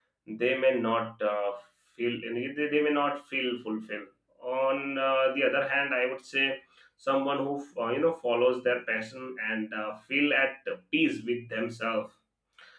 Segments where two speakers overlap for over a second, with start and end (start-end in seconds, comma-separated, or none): none